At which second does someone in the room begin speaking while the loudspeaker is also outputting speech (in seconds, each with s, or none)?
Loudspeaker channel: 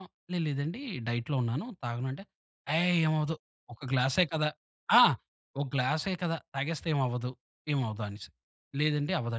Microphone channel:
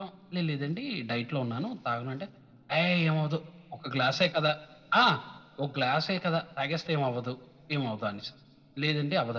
none